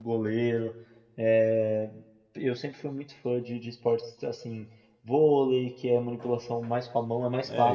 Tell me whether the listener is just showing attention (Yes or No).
No